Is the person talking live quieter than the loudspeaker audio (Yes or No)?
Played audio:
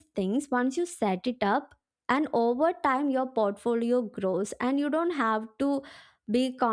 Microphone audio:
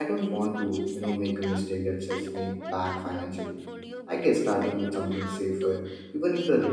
No